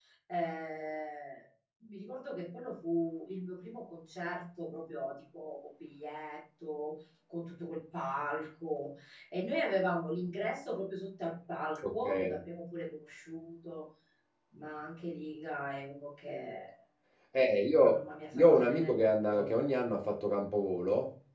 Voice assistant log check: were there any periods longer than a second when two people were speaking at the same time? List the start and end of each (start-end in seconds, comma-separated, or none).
17.9-19.5